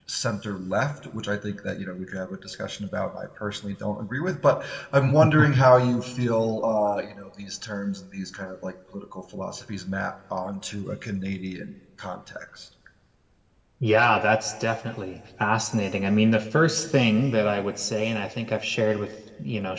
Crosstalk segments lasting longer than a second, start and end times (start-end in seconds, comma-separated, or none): none